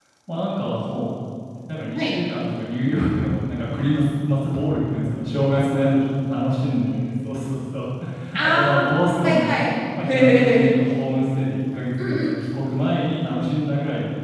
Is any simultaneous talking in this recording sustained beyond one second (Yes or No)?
Yes